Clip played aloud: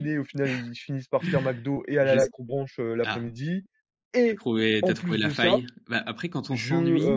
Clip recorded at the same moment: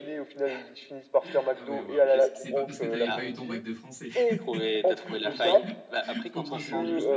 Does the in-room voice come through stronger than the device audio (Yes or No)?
No